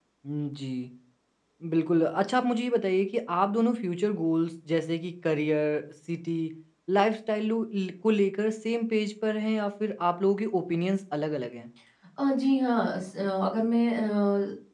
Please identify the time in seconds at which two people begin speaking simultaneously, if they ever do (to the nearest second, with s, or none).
none